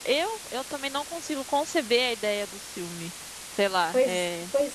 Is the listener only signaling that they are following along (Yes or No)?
No